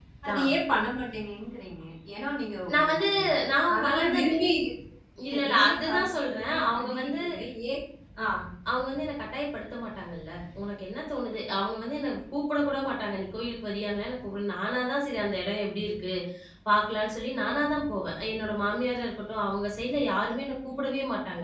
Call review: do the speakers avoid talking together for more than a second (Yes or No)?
No